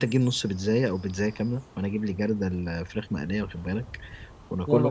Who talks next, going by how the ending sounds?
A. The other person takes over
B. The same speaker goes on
B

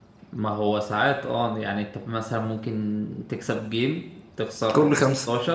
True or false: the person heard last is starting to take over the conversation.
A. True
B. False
B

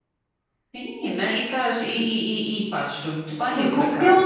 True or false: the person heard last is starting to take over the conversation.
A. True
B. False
A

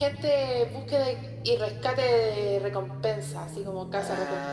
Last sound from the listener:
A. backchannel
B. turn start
B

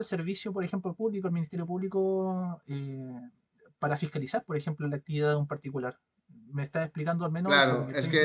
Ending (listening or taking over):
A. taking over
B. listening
A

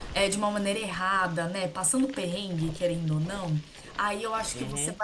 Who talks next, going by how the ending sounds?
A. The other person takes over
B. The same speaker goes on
B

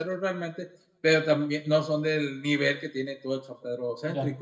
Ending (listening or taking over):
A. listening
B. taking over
B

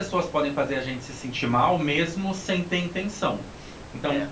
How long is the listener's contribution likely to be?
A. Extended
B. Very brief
B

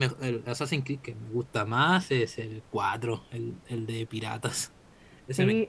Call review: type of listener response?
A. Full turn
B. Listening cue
A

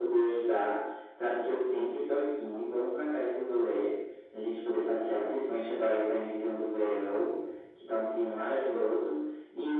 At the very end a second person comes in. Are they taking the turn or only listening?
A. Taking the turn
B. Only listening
B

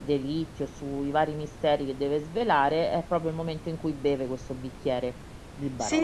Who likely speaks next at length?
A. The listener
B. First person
A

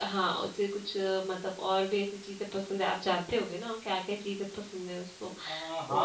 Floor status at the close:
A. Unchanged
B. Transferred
B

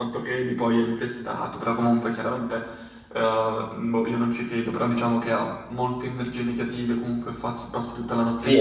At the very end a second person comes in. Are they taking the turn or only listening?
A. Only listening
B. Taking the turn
B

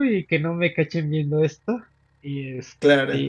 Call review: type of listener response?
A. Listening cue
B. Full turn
A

